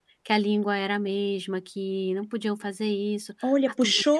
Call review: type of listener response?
taking over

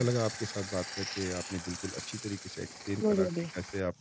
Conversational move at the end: listening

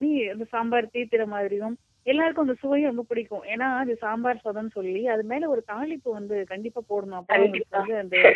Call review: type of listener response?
listening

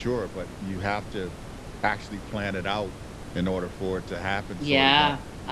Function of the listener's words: taking over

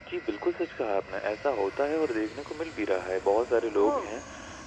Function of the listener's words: listening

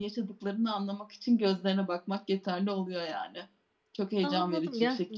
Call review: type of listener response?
taking over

